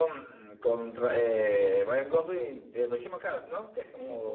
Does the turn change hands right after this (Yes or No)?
Yes